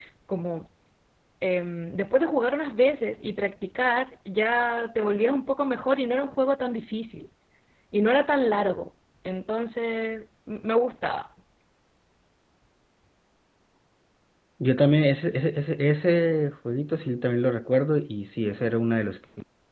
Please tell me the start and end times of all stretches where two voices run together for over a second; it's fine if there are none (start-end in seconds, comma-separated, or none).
none